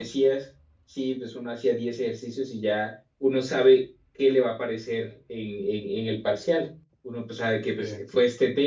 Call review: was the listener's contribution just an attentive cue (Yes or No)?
Yes